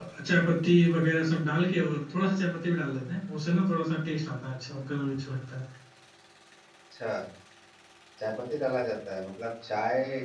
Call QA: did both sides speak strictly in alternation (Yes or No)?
Yes